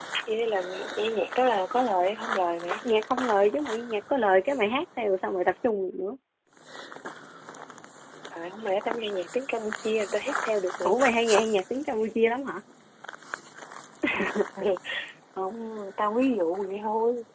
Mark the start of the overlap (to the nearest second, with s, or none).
none